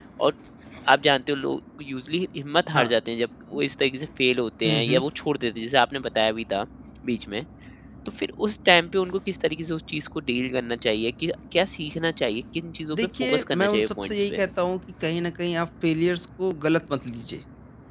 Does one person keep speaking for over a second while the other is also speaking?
Yes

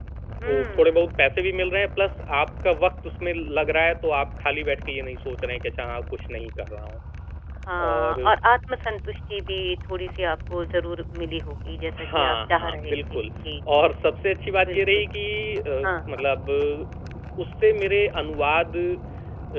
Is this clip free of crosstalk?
No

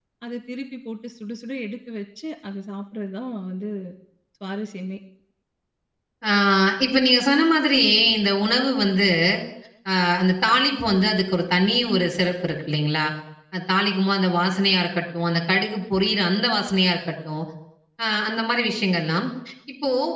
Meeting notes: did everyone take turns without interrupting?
Yes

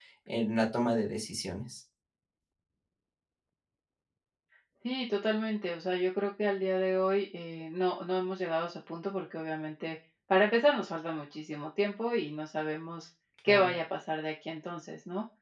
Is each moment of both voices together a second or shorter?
Yes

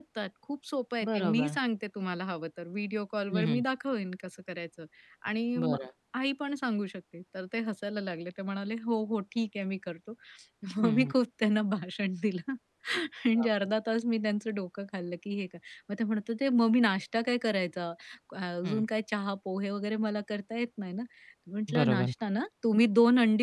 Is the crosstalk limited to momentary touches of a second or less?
Yes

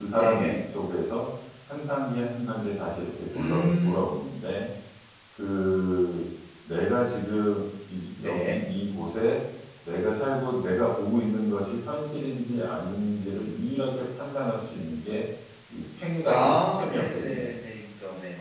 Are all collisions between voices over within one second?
No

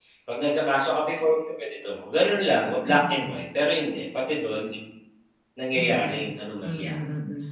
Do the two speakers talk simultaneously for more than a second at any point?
Yes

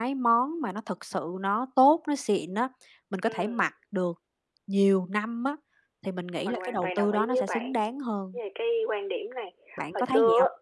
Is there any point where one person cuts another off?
Yes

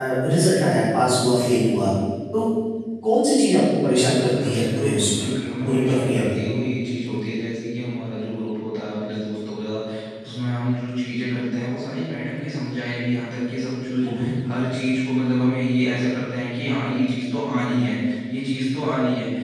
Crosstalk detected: Yes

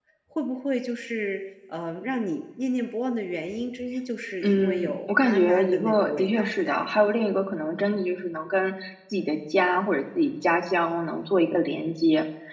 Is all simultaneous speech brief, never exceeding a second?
No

